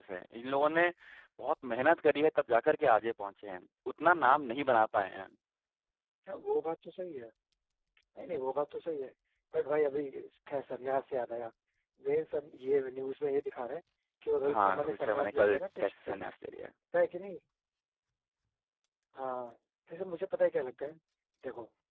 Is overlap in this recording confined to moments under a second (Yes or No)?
No